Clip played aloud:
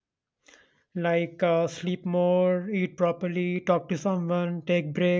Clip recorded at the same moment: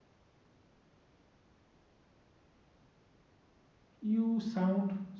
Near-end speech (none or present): present